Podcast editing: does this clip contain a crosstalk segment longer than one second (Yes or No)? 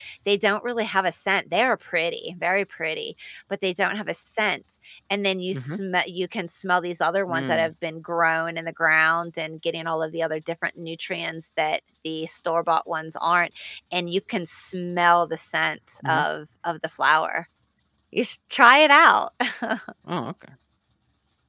No